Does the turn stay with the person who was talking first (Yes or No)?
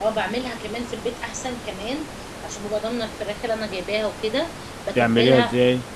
Yes